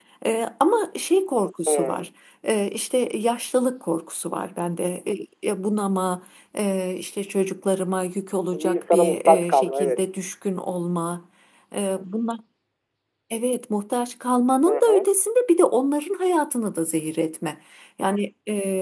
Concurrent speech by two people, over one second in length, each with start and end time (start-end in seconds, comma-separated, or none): 8.5-10.0